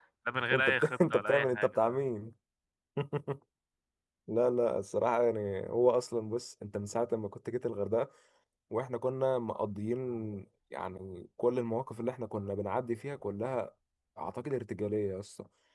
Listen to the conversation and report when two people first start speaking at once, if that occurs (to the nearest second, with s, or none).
1 s